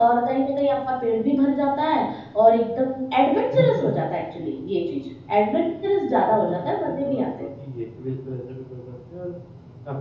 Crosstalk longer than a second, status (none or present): present